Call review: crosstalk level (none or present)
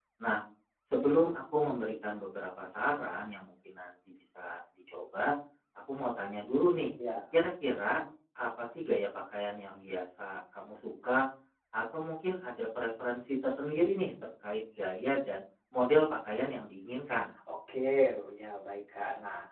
none